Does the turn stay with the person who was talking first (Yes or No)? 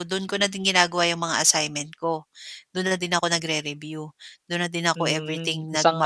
No